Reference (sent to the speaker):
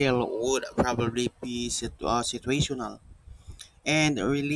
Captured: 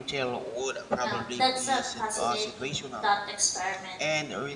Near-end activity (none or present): present